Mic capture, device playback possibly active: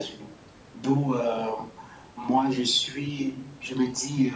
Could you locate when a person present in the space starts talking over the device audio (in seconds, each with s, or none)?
none